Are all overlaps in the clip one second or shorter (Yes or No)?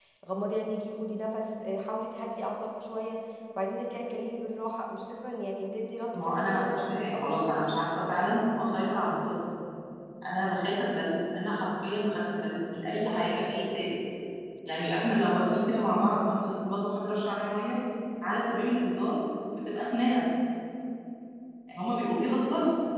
No